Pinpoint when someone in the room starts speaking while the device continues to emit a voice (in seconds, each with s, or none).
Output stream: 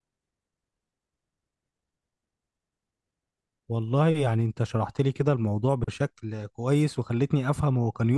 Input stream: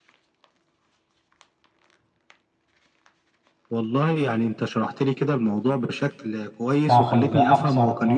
6.8 s